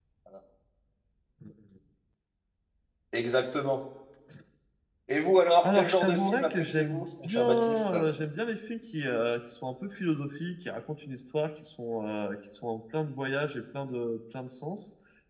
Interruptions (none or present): present